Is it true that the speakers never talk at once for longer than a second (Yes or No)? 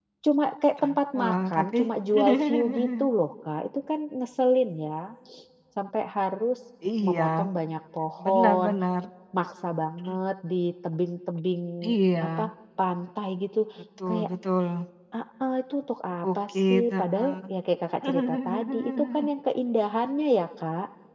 No